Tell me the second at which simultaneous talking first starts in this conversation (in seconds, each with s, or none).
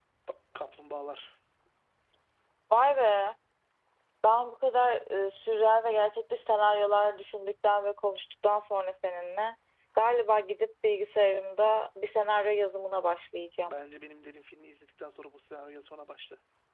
none